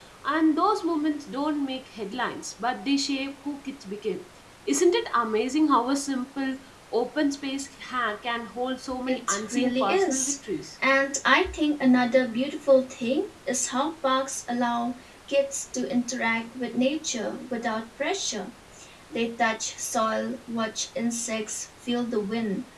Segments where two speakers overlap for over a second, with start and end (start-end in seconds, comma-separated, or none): 9.1-10.4